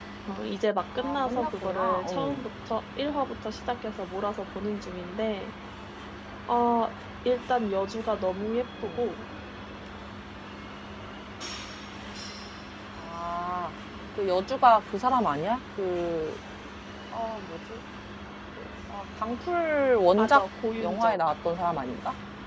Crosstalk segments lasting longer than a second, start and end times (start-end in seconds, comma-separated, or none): 0.9-2.4